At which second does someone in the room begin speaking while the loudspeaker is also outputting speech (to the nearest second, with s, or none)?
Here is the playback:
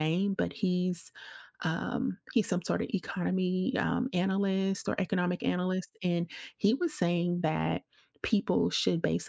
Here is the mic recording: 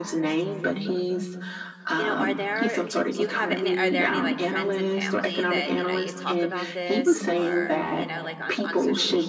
2 s